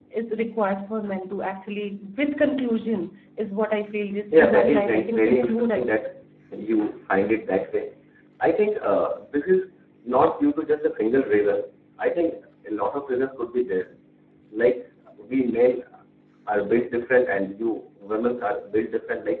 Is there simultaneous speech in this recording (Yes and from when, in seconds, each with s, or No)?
Yes, from 4.3 s